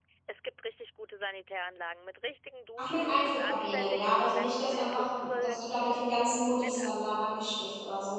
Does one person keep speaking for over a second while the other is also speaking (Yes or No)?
Yes